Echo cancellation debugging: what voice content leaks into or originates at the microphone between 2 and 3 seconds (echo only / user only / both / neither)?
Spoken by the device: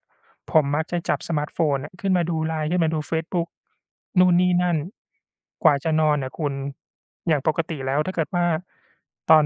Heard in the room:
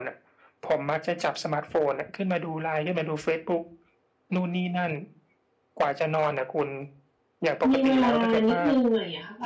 echo only